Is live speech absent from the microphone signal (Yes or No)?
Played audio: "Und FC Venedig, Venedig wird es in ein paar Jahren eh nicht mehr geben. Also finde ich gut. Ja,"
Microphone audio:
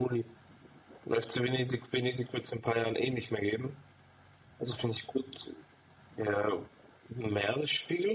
Yes